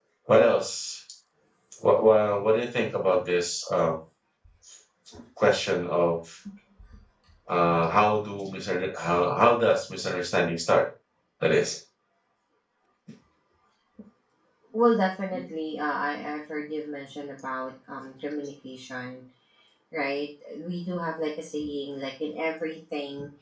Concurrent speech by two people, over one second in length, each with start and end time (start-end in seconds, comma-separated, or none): none